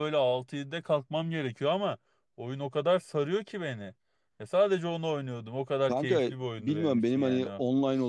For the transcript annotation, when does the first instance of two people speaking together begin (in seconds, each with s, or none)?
5.9 s